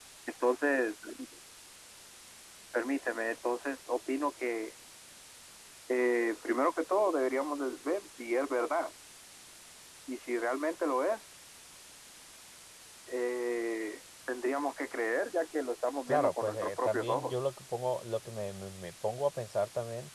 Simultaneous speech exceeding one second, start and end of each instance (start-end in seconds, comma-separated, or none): 16.1-17.3